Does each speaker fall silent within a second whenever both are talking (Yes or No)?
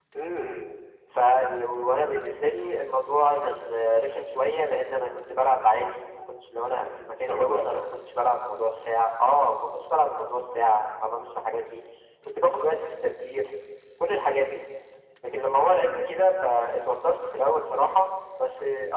Yes